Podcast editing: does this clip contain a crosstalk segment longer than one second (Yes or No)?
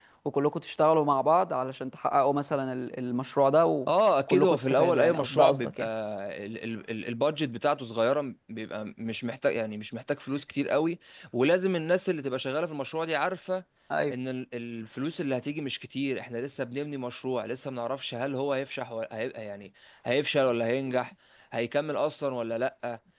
Yes